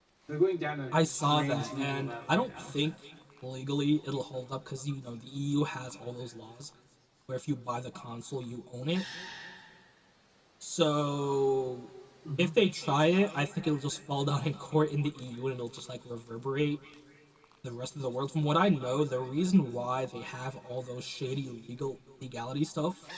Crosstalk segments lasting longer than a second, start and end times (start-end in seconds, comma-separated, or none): 0.9-2.7